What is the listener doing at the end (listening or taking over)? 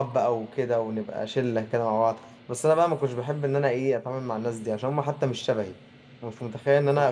listening